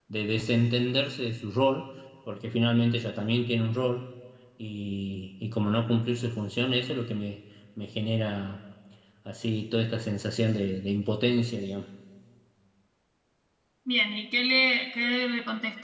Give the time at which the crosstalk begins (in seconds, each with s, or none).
none